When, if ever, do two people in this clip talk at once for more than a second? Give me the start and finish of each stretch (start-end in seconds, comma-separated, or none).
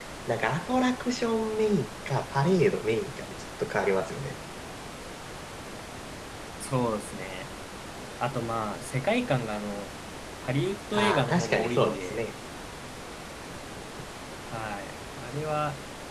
10.9-12.2